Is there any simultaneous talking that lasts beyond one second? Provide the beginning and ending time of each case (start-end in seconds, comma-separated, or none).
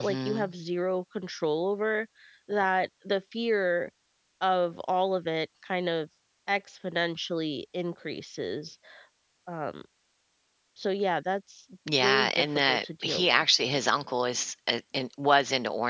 12.0-13.4